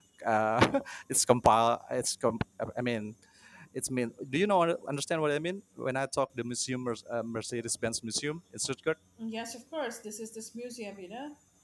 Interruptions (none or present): none